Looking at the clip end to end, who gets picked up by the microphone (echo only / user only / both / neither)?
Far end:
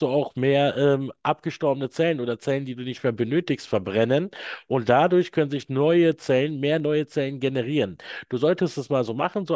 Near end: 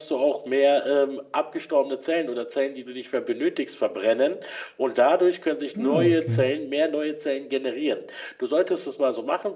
both